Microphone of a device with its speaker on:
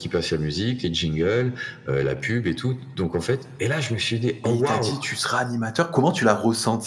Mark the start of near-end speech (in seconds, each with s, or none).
4.4 s